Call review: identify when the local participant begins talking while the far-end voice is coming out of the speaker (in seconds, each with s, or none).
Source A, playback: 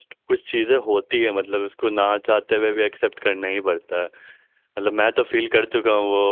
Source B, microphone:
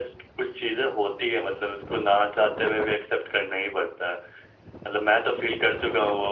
none